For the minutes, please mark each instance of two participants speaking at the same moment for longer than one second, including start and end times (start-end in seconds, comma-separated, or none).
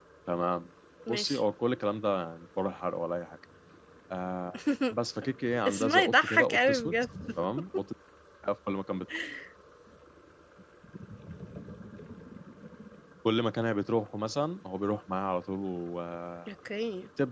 5.6-6.9